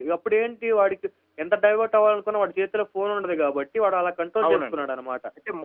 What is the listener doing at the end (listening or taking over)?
taking over